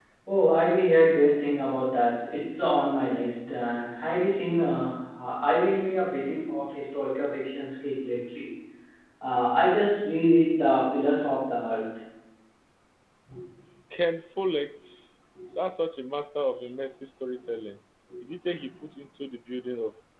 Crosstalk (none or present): none